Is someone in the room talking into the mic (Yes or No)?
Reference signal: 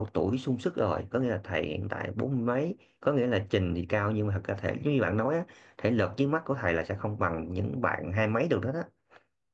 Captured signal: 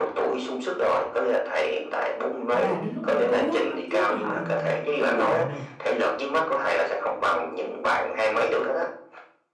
Yes